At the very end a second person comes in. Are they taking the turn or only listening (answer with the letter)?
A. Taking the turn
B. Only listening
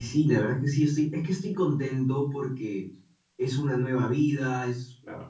B